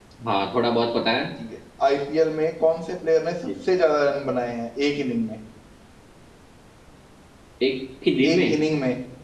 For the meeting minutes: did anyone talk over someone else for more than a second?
No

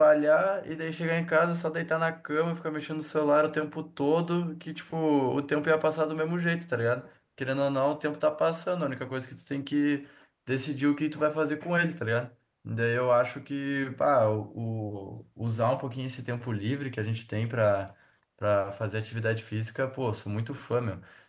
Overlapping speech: No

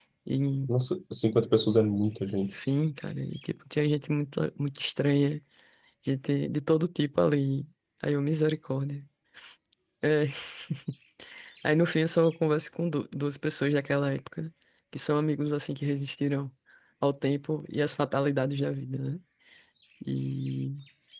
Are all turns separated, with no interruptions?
Yes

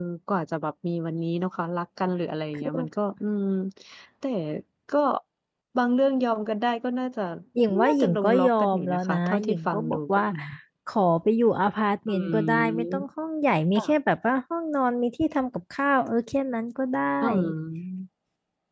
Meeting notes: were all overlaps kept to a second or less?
No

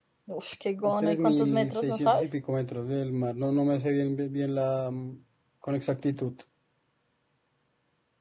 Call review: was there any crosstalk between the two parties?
Yes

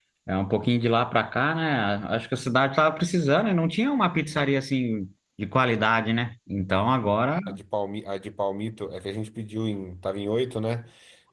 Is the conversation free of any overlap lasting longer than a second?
Yes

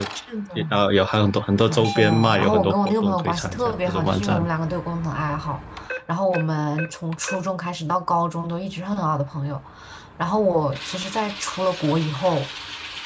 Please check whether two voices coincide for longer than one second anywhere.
Yes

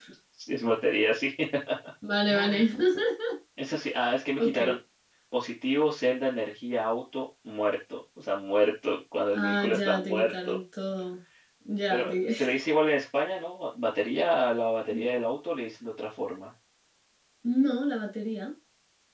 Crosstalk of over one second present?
Yes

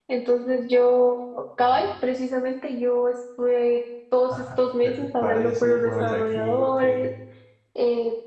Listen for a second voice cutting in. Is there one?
Yes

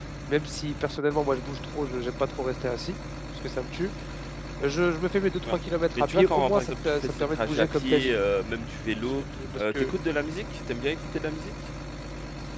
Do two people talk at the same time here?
Yes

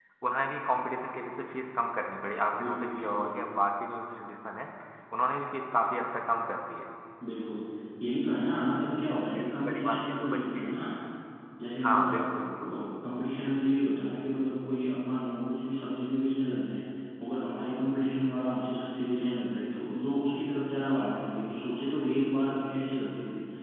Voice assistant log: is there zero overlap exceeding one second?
No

